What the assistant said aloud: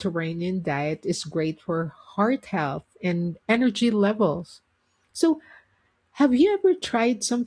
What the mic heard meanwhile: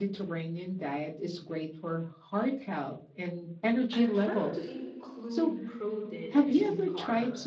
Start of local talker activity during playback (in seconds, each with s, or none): 3.9 s